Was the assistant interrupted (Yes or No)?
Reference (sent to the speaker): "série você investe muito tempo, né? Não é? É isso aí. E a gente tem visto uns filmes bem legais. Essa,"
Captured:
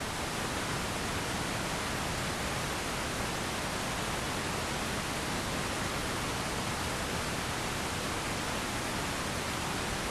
No